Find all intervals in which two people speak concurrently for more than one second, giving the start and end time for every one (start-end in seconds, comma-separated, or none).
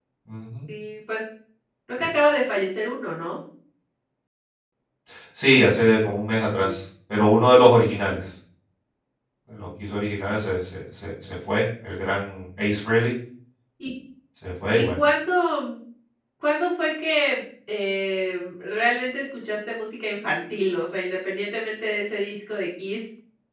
none